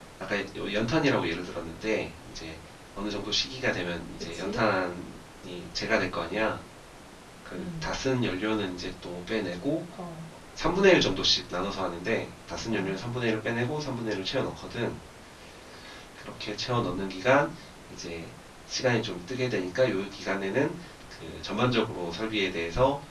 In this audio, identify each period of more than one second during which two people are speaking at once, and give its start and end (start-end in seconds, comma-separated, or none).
none